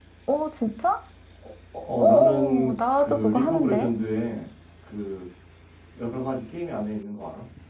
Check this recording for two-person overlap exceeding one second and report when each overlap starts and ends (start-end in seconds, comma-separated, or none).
2.0-3.9